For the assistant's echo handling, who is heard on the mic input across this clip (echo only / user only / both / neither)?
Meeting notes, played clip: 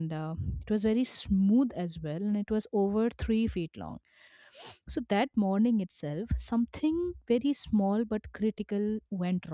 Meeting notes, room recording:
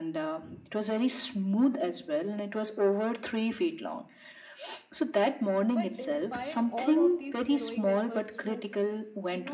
both